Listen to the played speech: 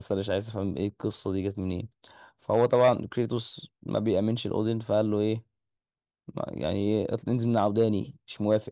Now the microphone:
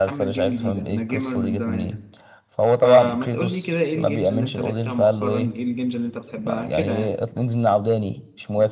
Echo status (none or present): present